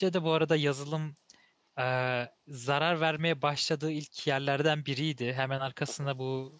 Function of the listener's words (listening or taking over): listening